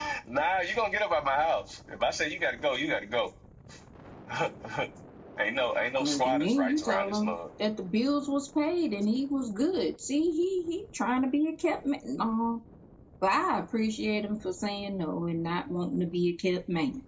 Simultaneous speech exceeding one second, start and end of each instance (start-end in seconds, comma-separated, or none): 6.0-7.3